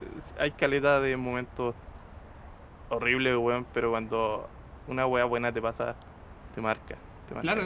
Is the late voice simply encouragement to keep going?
No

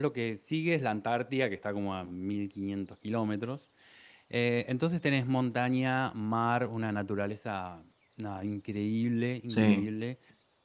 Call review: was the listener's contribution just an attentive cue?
Yes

